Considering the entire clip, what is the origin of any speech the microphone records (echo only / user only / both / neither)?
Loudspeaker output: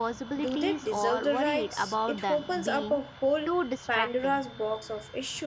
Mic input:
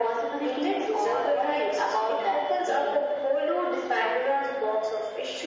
echo only